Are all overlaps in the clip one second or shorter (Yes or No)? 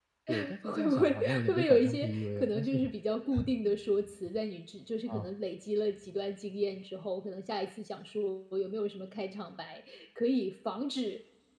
No